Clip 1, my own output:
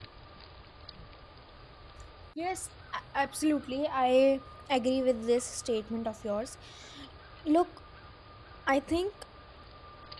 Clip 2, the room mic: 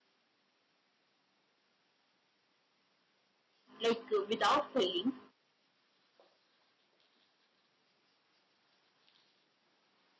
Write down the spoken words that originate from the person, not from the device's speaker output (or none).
Like uh, without failing,